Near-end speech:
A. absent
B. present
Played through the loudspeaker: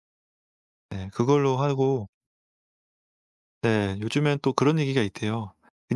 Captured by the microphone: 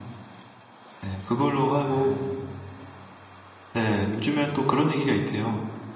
B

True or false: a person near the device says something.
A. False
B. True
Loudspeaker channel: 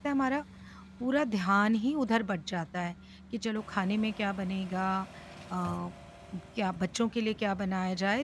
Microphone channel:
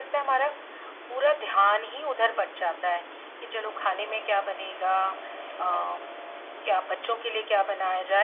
A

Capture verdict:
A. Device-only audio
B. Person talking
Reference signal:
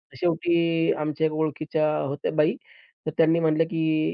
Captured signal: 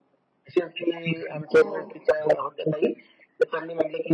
B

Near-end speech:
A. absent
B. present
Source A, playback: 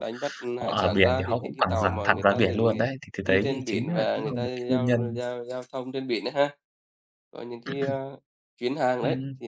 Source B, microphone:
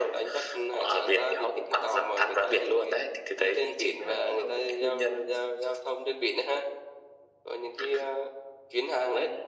A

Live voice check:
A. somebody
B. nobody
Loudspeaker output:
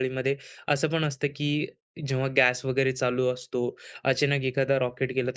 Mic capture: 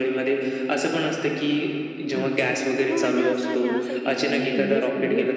A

